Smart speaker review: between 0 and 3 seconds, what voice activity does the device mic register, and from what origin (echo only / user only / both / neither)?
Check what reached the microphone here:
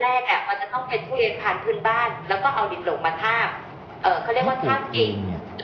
echo only